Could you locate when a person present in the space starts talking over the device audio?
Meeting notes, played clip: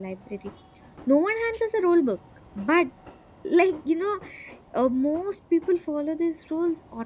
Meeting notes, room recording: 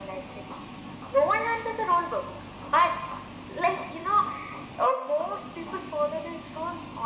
none

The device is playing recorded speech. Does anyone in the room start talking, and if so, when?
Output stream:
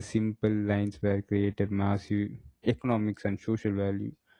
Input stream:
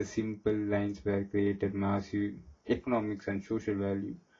none

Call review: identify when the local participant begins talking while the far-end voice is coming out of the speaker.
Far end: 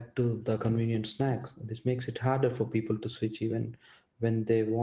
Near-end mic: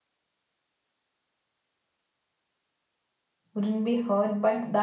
3.5 s

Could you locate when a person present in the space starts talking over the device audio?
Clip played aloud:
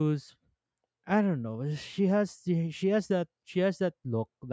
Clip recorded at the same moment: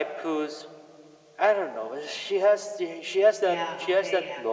3.4 s

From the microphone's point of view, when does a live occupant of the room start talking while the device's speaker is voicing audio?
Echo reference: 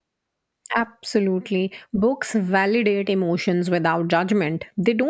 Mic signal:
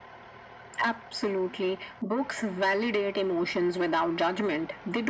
none

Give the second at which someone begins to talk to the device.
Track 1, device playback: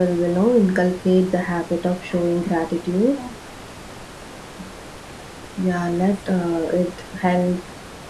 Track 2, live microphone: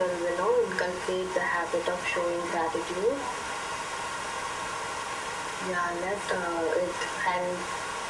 none

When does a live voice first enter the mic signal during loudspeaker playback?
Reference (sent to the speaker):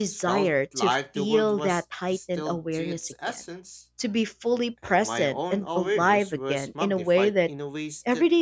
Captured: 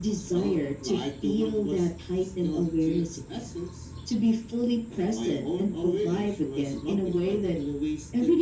none

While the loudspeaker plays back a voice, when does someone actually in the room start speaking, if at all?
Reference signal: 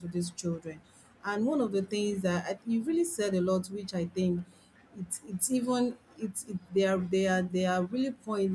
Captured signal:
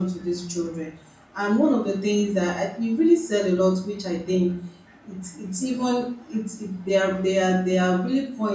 none

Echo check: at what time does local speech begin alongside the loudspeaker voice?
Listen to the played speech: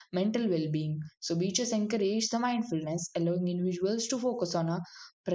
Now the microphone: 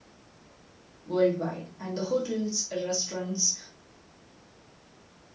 1.1 s

